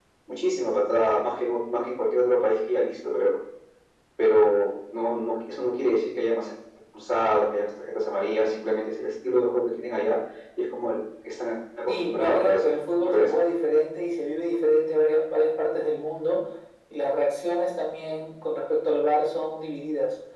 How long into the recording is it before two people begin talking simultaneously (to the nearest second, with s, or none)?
12 s